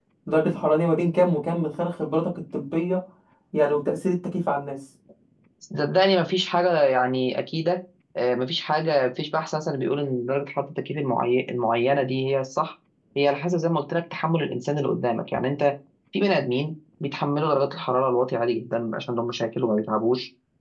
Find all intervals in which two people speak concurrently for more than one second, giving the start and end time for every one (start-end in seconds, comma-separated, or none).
none